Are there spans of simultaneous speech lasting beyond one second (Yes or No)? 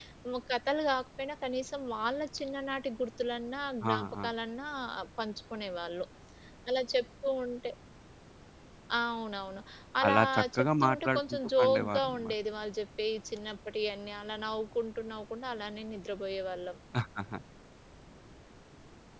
Yes